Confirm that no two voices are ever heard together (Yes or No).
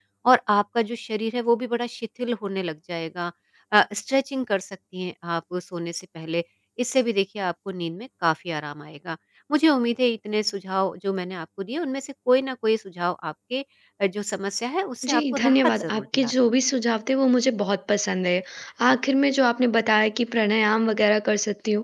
No